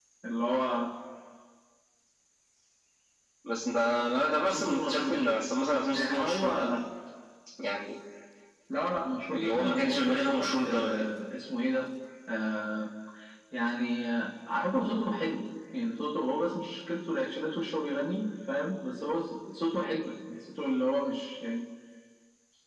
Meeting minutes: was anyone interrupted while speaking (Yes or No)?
Yes